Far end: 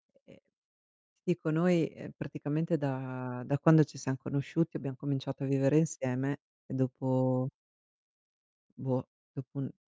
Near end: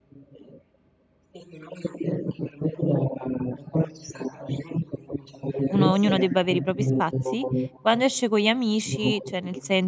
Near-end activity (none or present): present